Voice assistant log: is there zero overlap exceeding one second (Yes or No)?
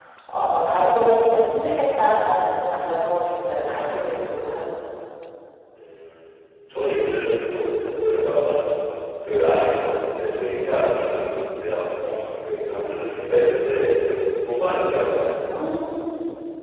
Yes